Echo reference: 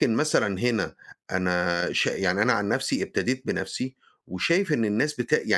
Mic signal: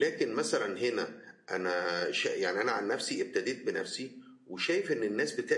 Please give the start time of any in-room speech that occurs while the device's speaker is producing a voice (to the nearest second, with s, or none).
none